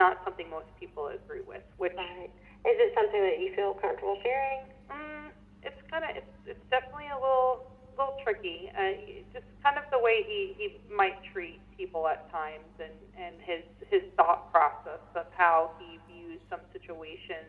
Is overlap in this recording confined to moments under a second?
Yes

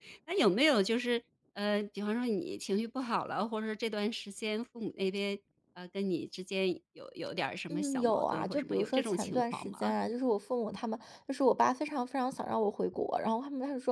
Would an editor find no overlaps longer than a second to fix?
No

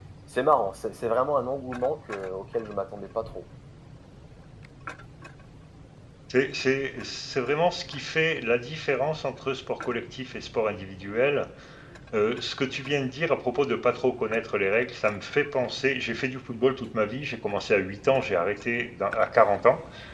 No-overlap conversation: Yes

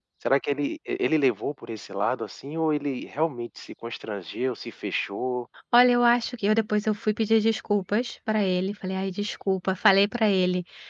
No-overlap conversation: Yes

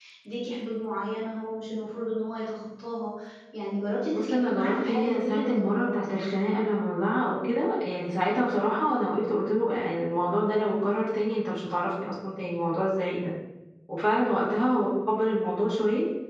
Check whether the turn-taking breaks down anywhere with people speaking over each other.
Yes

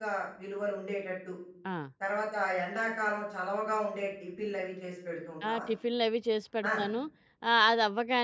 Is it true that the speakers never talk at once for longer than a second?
Yes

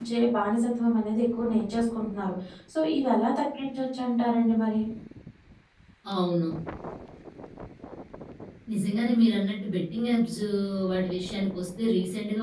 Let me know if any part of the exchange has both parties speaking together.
No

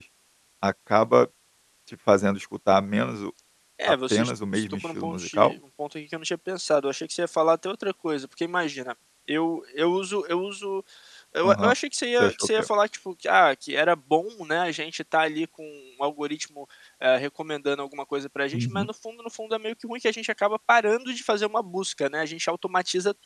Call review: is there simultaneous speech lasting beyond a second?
Yes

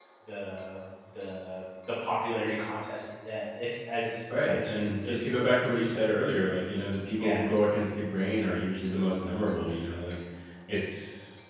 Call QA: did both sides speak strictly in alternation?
No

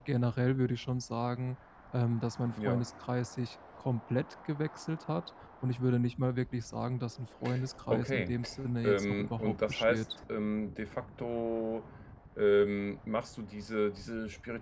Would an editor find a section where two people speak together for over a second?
Yes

